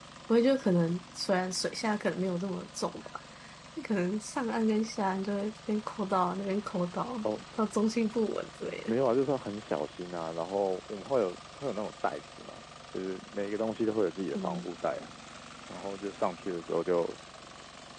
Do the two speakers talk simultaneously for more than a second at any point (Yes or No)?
No